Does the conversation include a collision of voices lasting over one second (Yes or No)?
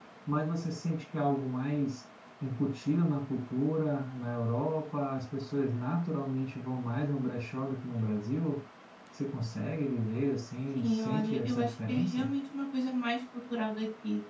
Yes